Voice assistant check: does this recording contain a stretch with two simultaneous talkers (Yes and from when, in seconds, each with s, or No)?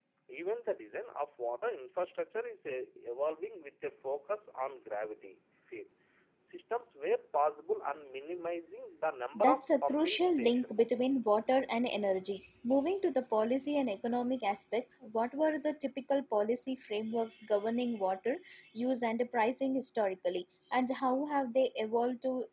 Yes, from 9.4 s